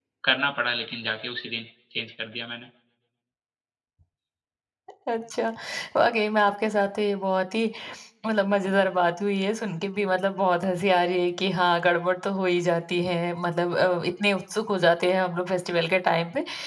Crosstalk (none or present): none